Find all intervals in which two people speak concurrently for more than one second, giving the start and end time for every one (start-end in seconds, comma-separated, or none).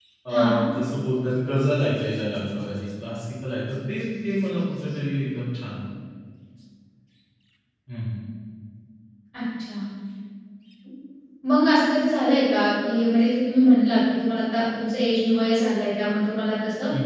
none